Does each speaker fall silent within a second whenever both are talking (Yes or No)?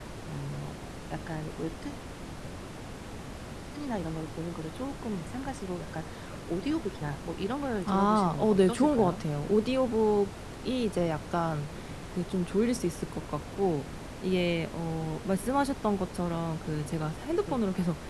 No